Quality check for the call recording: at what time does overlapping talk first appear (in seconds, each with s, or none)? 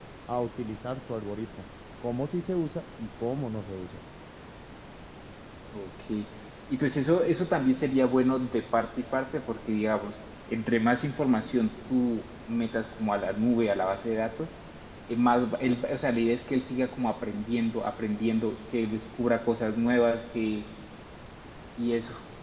none